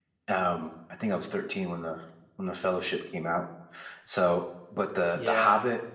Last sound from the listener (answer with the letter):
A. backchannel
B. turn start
A